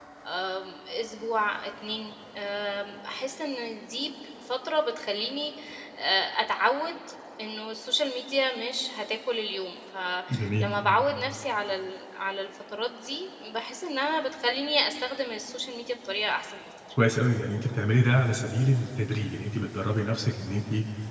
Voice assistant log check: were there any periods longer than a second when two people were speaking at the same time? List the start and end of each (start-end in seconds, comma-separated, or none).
none